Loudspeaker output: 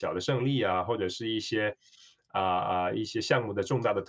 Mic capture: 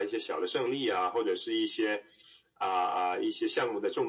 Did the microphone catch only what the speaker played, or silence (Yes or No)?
Yes